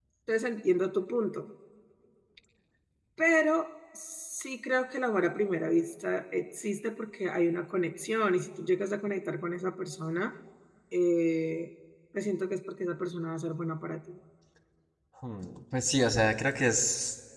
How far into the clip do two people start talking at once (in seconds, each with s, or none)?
none